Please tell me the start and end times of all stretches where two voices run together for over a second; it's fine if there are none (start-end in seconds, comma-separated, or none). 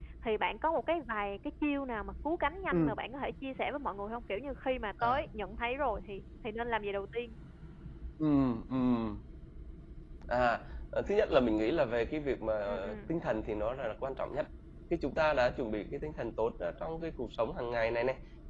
none